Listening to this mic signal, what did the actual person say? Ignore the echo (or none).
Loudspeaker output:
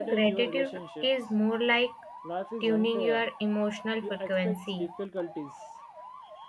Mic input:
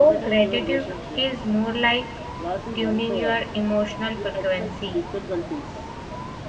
none